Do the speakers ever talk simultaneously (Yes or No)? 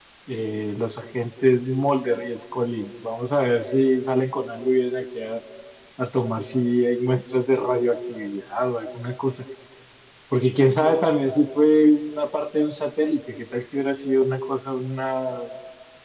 No